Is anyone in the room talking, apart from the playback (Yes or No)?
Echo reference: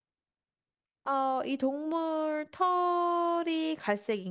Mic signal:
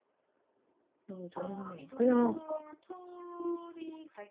Yes